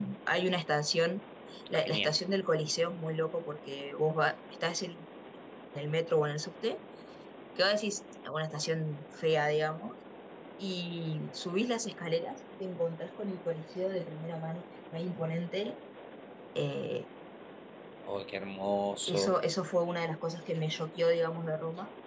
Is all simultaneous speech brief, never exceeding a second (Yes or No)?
Yes